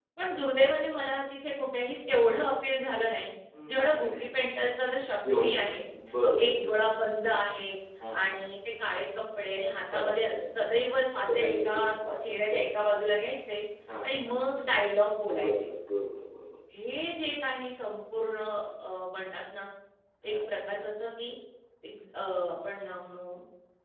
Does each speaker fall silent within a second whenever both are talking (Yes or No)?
No